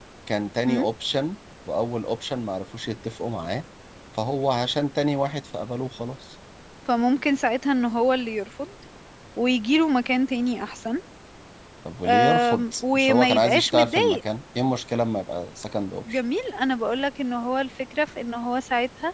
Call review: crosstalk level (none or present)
present